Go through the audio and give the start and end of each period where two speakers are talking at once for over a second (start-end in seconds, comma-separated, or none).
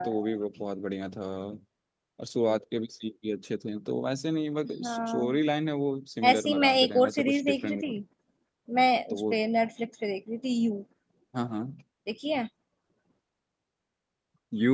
6.3-7.8